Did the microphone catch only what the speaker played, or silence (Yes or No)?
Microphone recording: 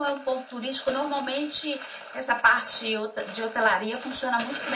Yes